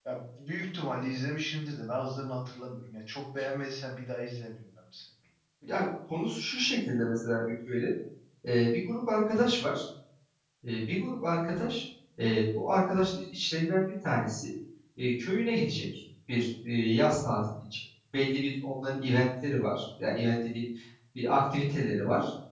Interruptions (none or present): none